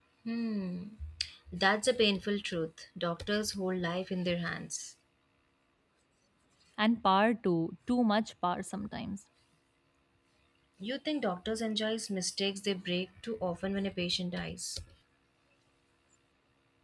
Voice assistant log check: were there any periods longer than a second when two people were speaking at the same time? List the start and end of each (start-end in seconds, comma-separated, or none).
none